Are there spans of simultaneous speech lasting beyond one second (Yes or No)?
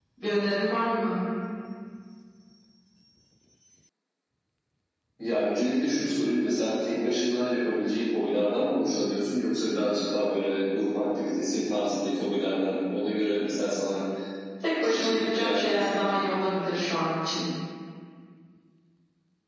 Yes